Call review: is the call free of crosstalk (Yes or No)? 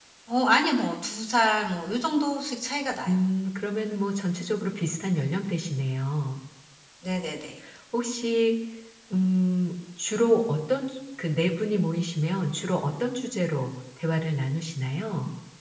Yes